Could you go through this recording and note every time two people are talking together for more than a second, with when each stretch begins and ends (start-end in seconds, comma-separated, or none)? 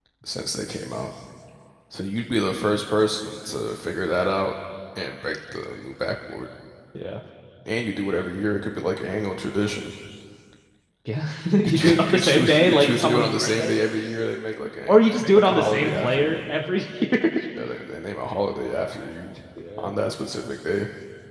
11.6-13.7, 14.9-16.5